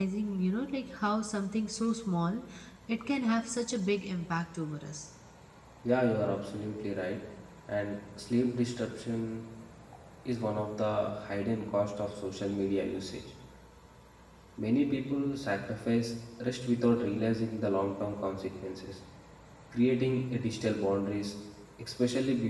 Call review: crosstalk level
none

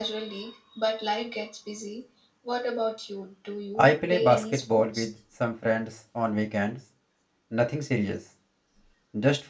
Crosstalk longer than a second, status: present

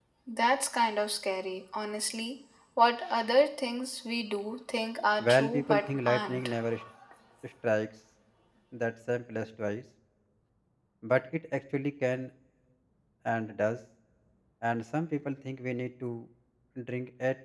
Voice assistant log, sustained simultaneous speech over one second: present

